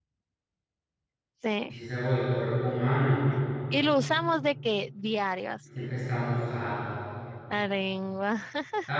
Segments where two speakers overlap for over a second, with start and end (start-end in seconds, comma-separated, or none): none